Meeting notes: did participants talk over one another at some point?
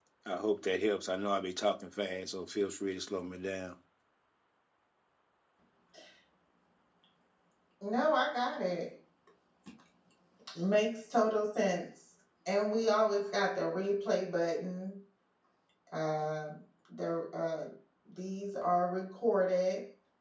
No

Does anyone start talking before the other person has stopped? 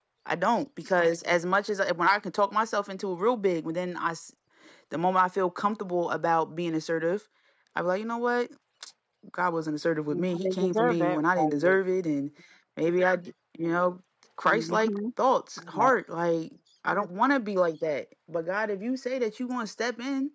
Yes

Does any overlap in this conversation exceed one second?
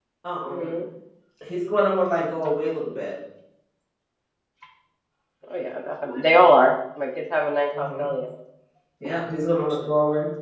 No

